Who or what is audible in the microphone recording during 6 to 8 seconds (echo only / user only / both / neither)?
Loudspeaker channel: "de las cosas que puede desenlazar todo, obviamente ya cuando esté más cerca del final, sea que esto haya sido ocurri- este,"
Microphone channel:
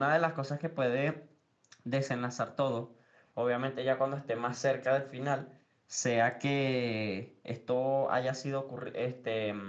echo only